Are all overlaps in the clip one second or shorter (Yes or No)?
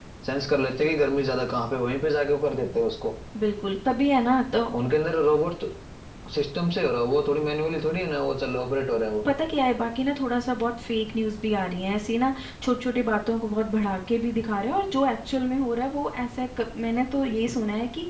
Yes